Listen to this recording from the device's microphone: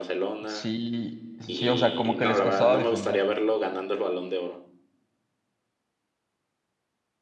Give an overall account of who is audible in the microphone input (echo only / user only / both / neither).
both